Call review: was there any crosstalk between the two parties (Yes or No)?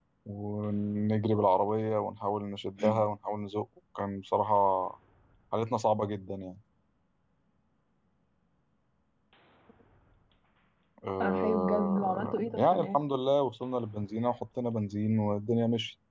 Yes